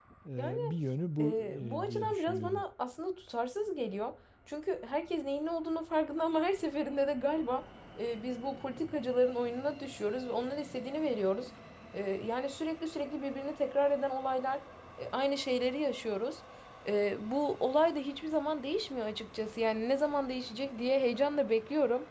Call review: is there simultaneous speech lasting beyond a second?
Yes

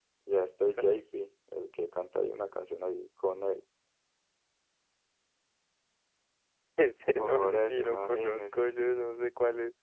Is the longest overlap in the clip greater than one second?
Yes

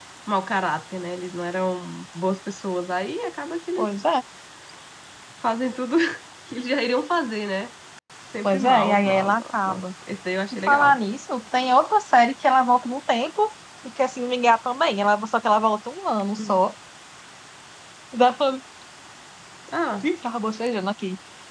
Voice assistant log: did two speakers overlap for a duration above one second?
Yes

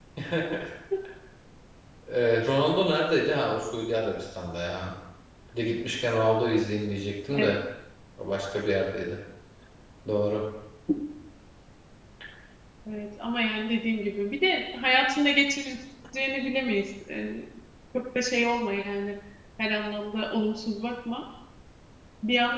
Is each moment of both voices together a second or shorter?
Yes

